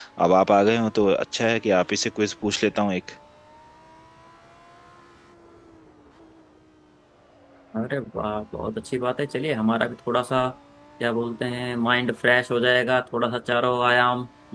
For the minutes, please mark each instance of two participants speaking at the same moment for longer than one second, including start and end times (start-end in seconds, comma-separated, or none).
none